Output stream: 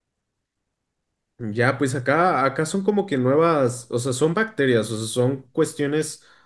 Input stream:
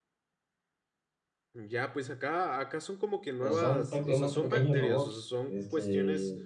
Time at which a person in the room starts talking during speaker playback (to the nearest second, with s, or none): 3 s